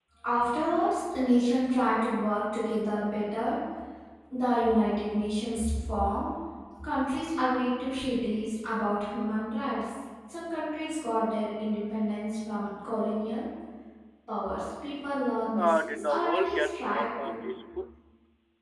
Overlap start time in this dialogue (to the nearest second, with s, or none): 16 s